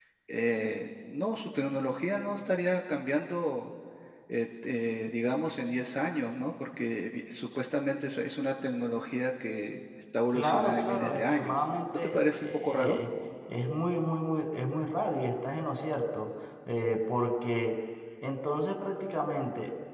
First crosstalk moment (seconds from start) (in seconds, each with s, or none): 10.3 s